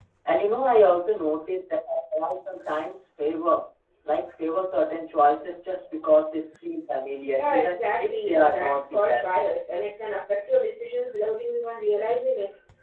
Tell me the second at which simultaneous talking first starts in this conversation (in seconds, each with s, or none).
7.4 s